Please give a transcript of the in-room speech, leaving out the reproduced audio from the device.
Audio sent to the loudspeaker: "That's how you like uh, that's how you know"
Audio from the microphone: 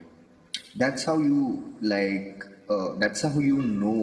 none

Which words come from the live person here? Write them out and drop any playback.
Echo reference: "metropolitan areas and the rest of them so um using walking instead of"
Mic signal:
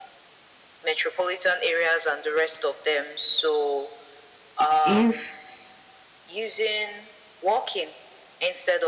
if

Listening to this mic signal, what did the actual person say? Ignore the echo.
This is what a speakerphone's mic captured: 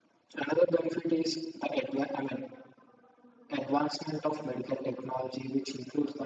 none

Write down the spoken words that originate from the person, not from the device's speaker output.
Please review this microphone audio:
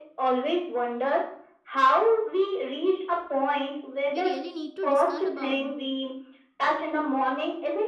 we really need to discuss about

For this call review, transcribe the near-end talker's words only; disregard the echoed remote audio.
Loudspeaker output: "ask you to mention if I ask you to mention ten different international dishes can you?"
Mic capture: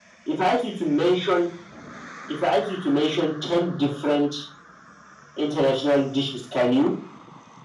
none

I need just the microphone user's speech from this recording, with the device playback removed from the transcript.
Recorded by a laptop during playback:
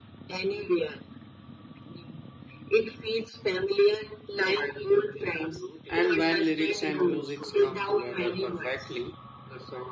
And when lyrics and music come together perfectly,

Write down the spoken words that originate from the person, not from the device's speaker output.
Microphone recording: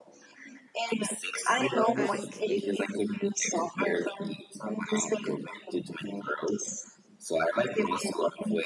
i'm ki-

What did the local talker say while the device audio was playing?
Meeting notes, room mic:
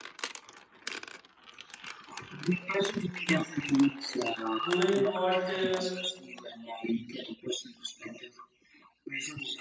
doing what uh,

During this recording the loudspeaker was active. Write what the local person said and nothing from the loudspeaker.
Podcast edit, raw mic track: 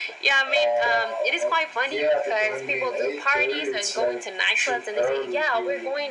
none

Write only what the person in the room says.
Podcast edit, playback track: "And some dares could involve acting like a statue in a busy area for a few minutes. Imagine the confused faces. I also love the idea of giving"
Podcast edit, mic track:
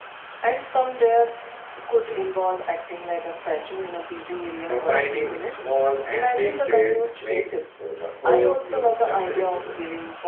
combining small and big tests makes uh, the whole thing unpredictable.

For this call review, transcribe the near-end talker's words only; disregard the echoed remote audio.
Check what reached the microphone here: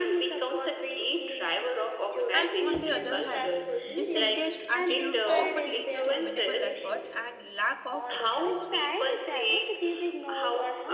and on the other hand disengaged attitude often leads to minimal effort and lack of interest

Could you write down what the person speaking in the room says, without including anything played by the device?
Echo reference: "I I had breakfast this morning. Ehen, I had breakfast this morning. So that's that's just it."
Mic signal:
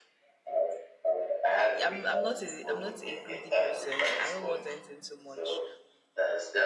I'm I'm not a I'm not a greedy person. I don't want anything too much.

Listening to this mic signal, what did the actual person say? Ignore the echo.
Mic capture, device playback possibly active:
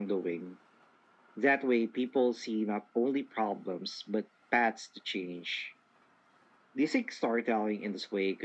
none

